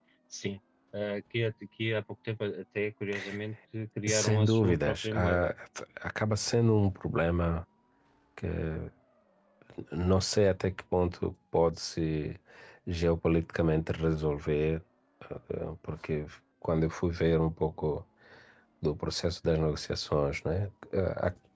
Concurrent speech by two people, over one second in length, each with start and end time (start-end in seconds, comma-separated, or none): 4.1-5.5